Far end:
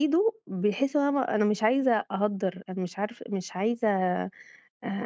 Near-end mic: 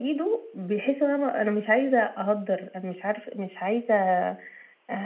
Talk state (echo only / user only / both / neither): echo only